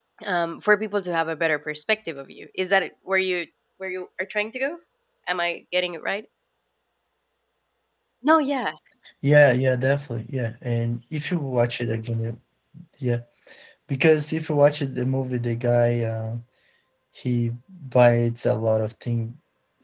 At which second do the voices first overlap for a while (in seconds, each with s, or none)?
none